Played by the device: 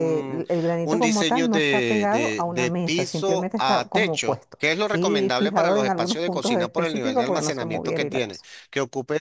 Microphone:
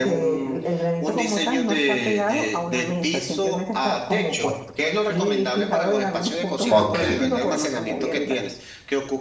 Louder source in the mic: user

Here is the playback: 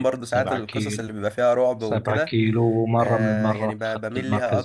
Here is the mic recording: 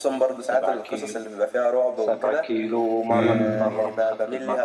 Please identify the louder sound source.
user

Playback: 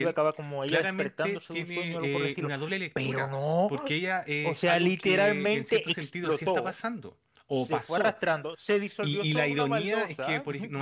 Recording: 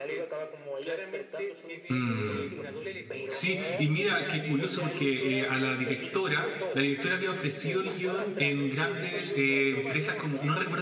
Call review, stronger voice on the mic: user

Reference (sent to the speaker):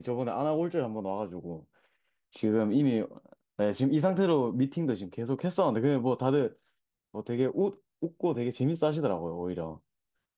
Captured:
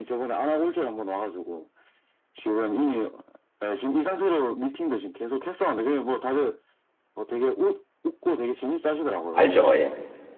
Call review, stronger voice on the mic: user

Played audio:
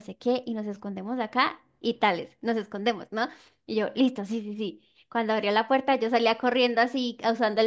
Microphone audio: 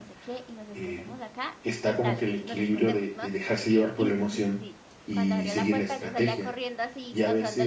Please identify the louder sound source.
user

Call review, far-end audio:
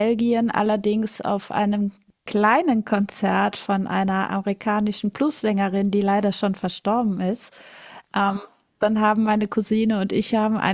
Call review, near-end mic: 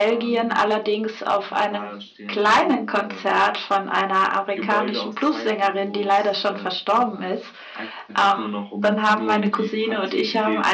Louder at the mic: echo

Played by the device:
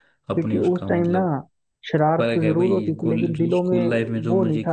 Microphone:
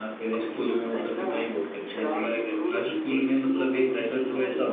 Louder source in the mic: user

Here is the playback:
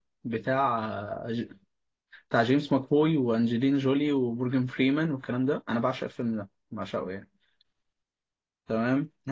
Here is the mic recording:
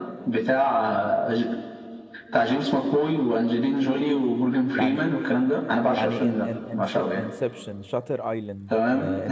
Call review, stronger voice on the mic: echo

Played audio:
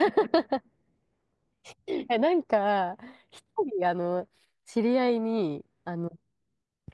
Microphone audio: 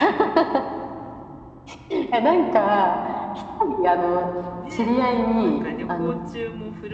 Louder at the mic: echo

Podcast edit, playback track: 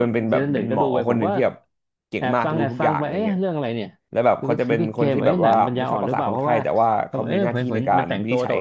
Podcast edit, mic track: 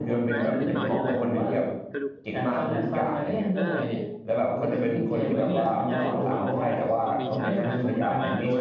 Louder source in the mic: echo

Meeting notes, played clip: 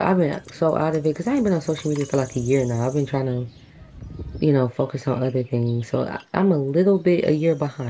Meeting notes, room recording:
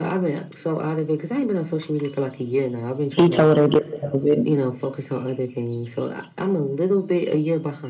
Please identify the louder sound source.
user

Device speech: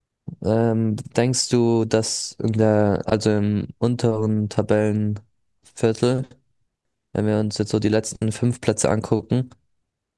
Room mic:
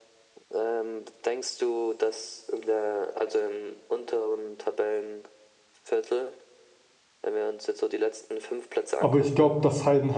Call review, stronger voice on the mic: user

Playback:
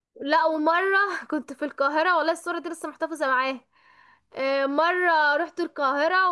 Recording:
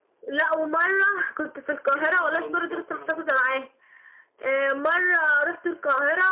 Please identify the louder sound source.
echo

